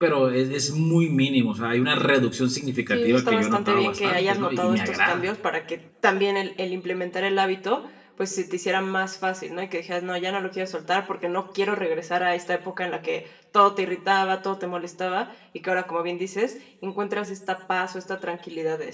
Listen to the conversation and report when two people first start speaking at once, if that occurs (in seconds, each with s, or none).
2.9 s